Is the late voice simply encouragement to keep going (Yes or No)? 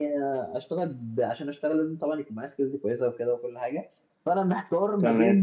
Yes